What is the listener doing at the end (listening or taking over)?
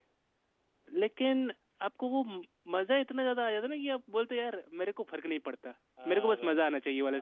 taking over